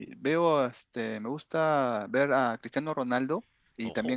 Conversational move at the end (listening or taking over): listening